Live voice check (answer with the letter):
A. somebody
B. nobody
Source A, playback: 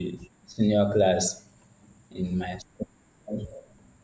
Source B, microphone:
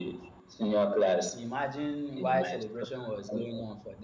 A